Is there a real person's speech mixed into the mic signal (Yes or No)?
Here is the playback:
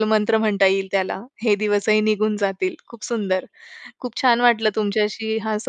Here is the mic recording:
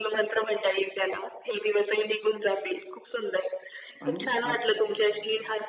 Yes